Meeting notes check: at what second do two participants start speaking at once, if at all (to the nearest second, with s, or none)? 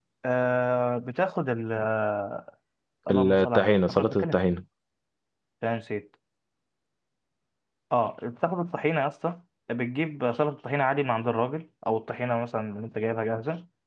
3 s